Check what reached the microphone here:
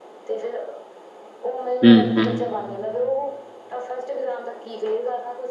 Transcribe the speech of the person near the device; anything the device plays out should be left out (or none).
ਹੂੰ ਹੂੰ